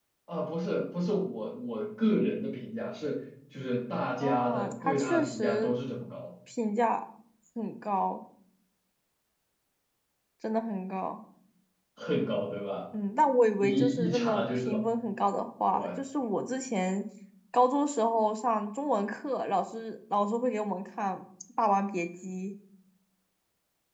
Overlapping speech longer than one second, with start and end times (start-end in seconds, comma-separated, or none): 4.2-5.7, 13.6-14.8